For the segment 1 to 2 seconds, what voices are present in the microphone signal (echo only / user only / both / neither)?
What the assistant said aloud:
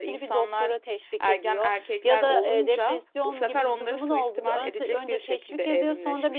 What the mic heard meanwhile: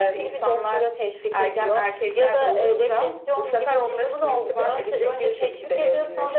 echo only